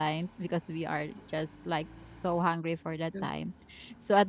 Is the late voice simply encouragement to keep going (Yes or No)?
Yes